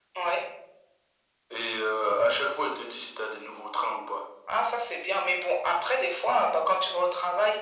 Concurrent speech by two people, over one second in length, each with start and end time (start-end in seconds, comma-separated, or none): none